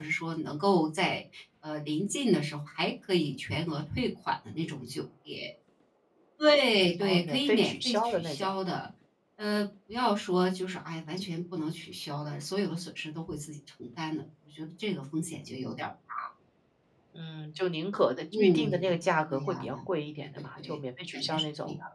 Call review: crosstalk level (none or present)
present